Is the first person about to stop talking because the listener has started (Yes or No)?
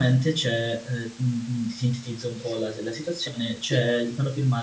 No